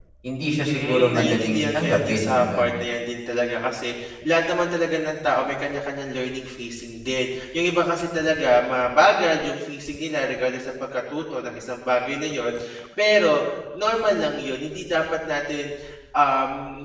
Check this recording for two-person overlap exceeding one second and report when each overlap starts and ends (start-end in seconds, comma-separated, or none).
0.6-2.7